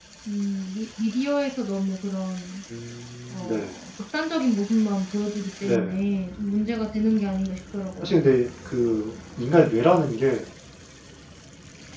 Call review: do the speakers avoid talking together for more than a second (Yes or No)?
Yes